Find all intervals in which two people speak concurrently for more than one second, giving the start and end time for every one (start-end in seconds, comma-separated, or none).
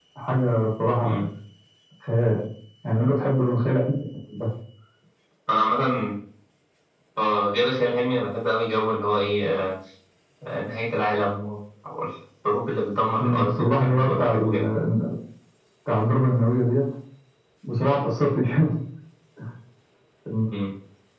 13.2-14.5